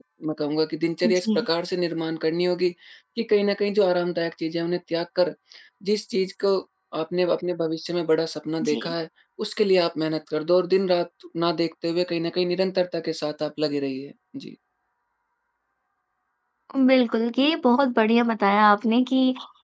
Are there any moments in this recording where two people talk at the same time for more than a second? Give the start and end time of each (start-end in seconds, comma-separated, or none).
none